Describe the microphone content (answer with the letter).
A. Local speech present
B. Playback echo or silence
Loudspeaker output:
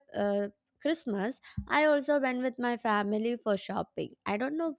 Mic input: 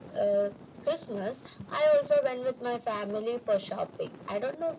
B